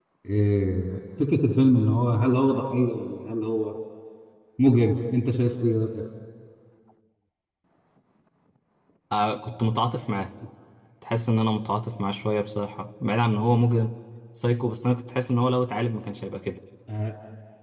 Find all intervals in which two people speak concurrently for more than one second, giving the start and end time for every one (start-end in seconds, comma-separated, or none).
none